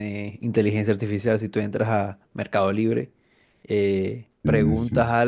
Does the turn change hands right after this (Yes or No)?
No